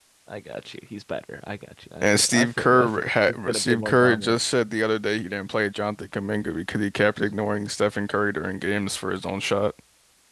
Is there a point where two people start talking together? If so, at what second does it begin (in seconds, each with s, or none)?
2.0 s